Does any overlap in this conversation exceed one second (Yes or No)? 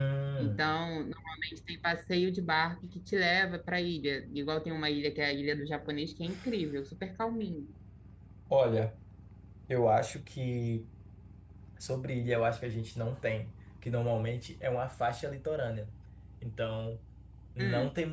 No